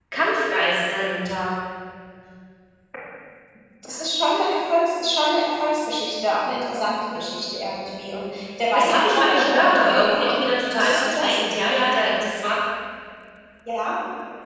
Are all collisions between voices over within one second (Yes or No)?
No